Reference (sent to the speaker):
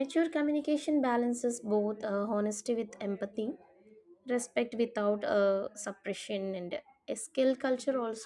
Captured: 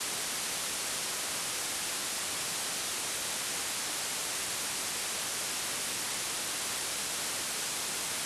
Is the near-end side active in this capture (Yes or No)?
No